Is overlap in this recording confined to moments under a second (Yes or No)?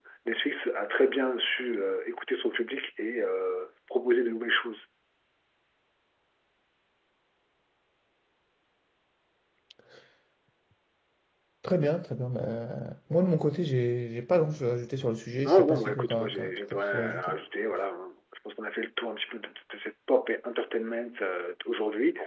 No